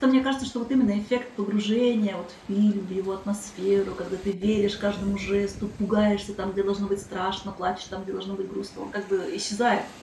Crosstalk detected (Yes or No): No